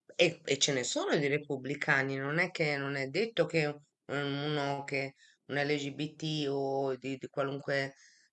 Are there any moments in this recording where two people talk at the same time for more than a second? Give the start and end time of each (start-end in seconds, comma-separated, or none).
none